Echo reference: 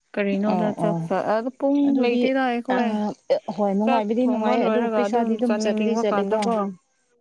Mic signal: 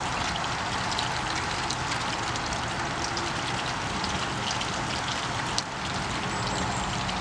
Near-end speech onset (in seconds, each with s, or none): none